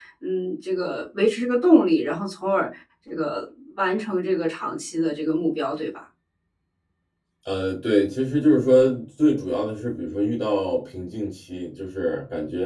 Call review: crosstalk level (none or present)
none